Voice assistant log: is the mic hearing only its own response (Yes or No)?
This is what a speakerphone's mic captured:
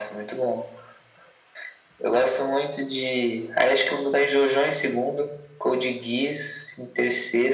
Yes